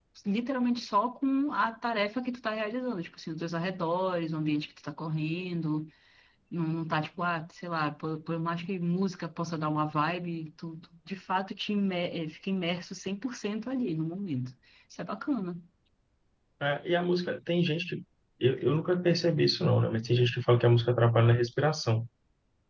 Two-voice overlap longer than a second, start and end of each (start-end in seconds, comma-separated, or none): none